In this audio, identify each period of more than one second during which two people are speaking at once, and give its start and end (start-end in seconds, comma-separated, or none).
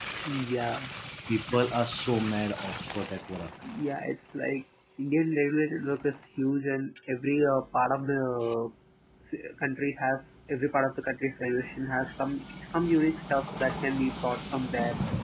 none